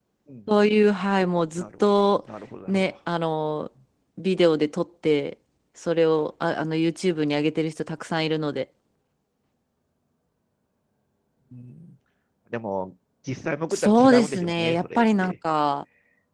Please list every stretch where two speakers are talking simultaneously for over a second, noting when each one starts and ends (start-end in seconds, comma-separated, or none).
13.7-15.3